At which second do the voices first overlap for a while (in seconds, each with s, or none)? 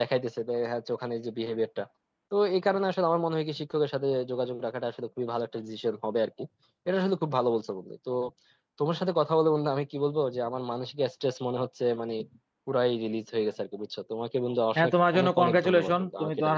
14.8 s